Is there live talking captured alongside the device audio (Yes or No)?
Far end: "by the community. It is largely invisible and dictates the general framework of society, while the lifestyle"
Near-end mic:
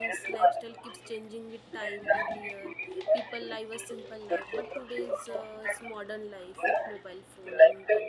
Yes